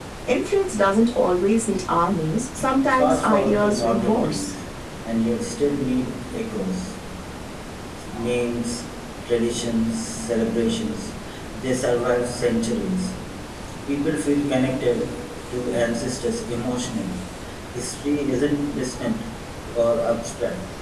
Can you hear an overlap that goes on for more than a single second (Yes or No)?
Yes